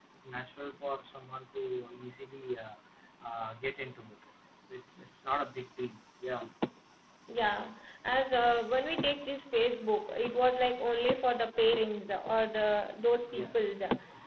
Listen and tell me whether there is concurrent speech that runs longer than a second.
No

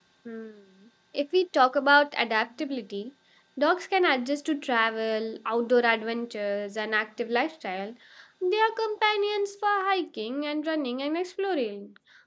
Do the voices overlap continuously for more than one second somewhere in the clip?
No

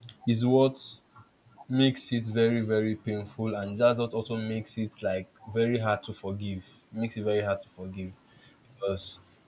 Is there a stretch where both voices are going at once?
No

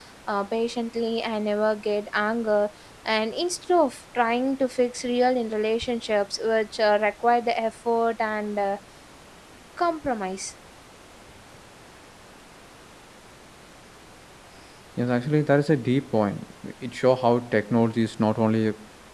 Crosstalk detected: No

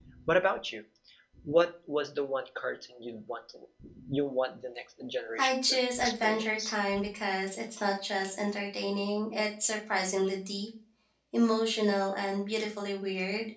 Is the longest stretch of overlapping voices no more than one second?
No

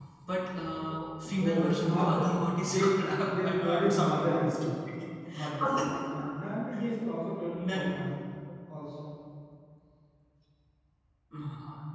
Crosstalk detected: Yes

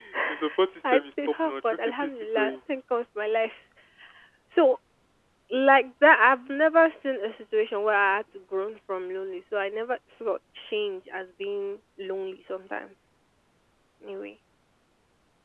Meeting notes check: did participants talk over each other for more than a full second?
Yes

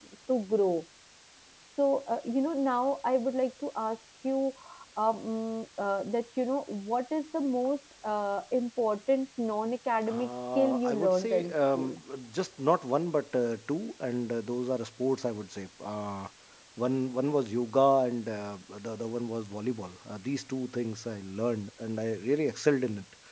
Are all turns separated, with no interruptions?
No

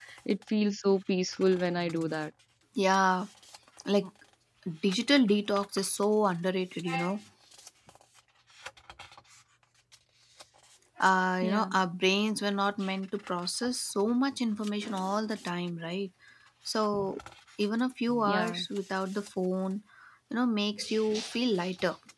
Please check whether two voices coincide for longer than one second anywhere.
No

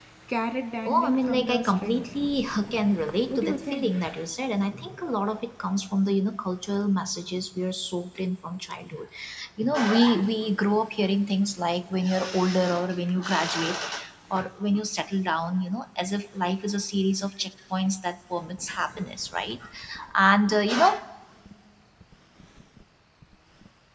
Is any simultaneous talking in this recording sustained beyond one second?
Yes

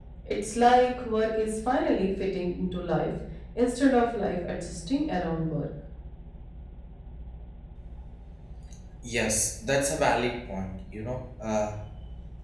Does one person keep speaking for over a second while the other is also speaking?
No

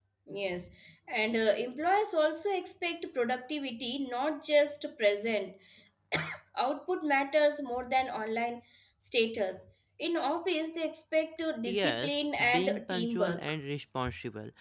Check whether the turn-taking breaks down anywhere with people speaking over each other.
Yes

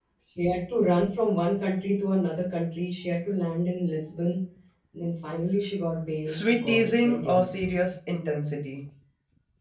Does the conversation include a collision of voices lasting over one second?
Yes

